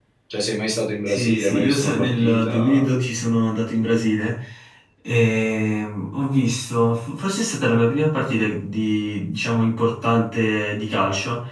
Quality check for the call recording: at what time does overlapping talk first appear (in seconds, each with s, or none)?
1.1 s